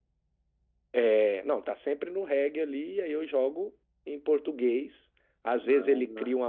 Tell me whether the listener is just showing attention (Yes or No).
Yes